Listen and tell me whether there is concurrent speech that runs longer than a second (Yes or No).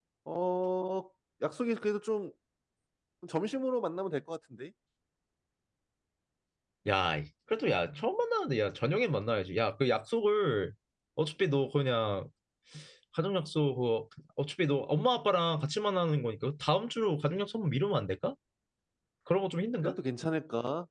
No